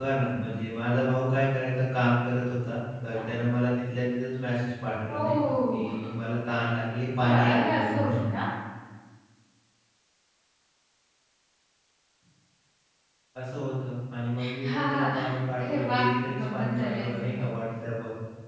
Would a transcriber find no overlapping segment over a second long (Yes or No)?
No